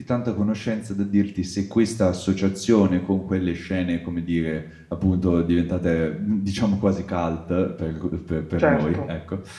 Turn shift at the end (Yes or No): No